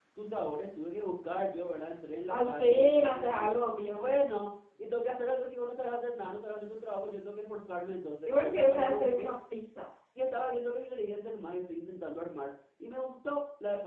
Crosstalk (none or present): present